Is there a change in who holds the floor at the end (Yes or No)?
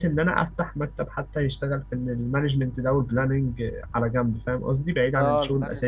Yes